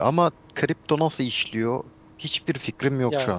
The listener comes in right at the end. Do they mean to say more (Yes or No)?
Yes